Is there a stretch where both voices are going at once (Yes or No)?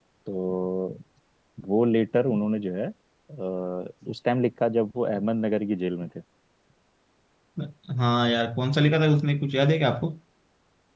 No